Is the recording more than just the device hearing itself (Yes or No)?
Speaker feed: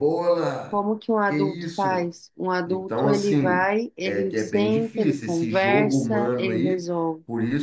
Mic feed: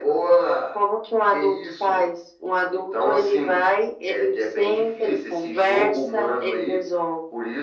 No